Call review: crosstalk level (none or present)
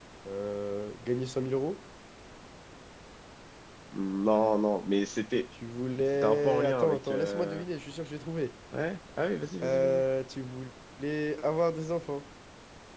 present